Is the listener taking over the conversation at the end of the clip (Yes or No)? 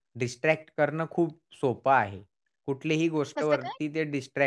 No